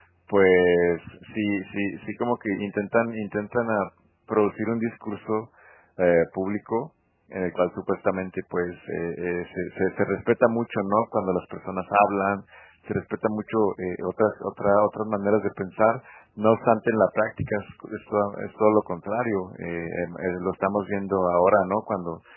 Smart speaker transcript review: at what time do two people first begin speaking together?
none

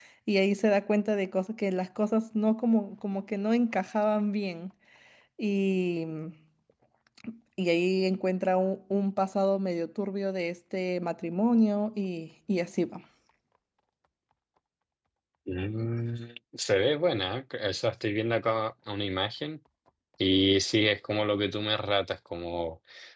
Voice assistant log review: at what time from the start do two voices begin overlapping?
none

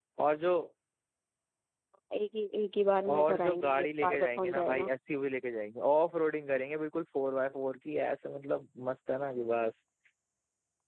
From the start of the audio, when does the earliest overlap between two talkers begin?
3.0 s

